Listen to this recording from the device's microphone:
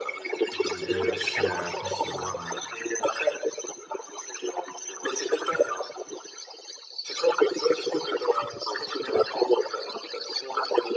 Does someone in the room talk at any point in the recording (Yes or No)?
Yes